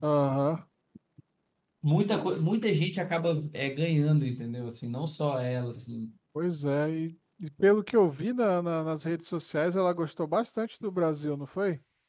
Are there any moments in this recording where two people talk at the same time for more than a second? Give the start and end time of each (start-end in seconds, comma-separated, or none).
none